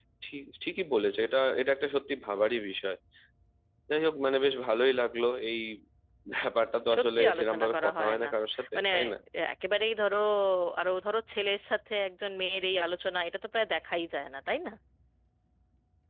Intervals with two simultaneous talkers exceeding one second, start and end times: 7.0-8.3

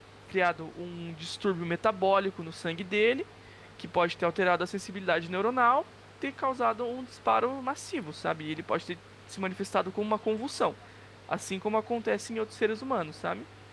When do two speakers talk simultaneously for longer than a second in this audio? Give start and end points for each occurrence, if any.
none

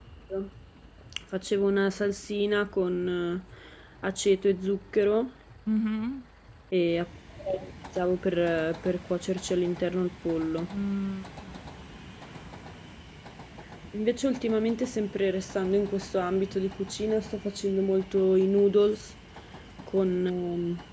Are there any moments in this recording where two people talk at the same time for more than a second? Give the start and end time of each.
none

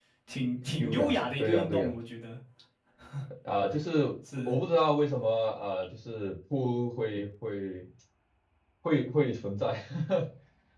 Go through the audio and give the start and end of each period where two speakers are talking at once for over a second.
0.7-1.9

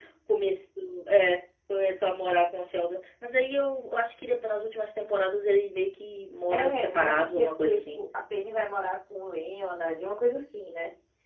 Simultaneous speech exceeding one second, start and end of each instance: 6.5-8.0

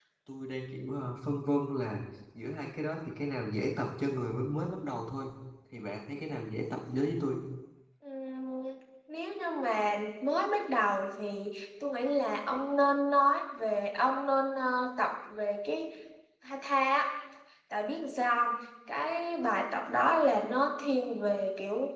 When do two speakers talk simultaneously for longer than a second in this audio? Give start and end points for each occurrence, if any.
none

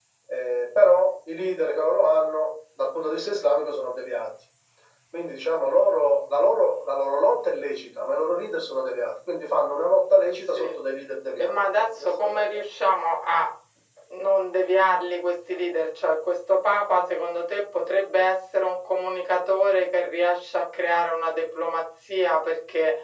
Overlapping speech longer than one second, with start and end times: 11.4-12.7

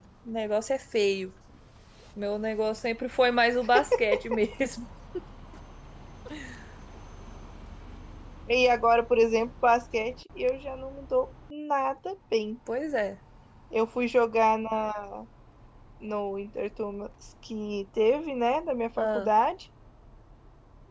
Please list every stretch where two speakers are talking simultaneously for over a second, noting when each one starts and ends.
none

